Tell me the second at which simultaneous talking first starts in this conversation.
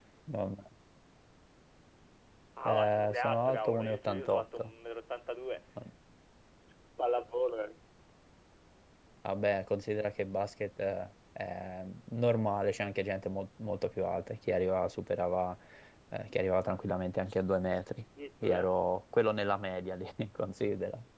2.6 s

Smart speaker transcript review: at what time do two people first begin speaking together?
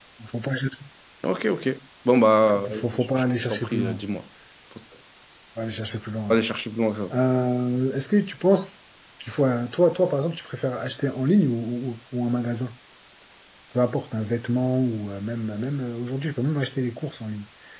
2.7 s

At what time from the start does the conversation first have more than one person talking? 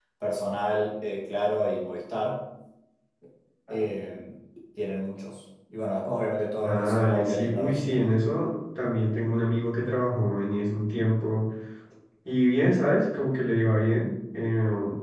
6.6 s

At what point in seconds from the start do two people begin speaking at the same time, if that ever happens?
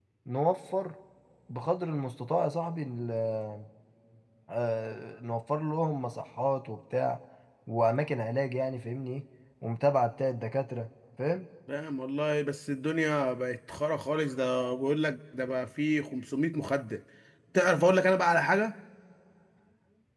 none

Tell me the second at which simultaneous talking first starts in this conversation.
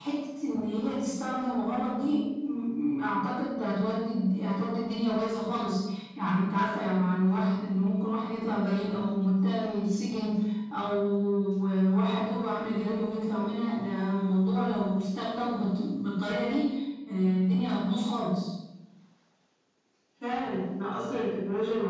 none

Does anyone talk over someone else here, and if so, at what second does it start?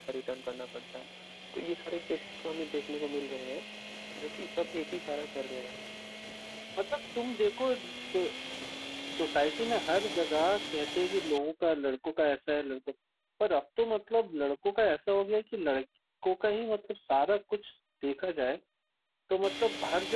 none

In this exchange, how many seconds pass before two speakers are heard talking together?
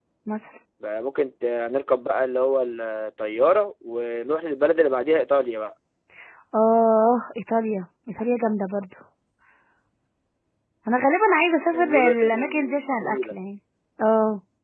11.7 s

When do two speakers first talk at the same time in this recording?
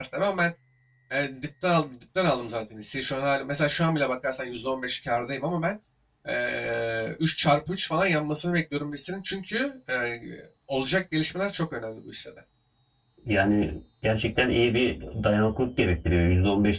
none

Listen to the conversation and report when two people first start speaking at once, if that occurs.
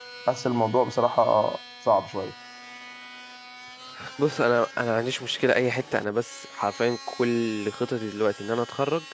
none

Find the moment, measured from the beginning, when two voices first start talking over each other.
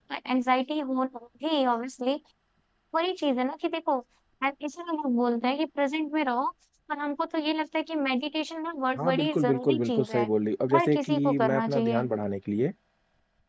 9.0 s

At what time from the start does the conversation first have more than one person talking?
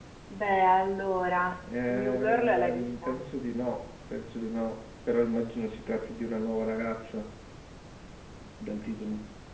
1.7 s

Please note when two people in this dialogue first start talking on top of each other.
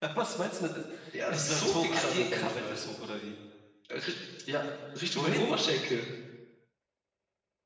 1.3 s

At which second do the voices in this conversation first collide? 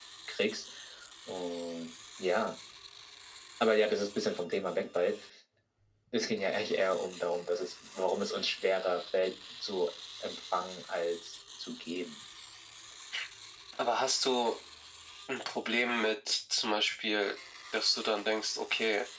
none

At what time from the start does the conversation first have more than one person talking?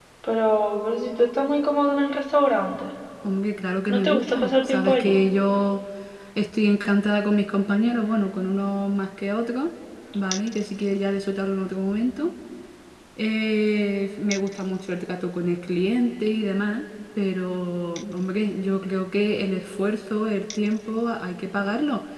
3.9 s

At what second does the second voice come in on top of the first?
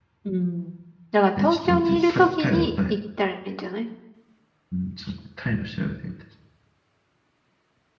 1.4 s

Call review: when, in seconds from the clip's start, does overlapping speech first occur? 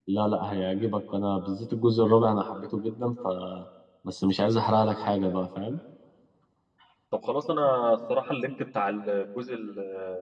none

